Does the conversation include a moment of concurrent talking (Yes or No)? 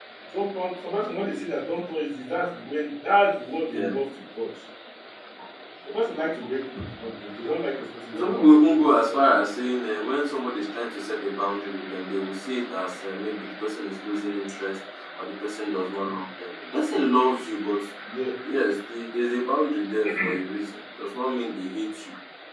Yes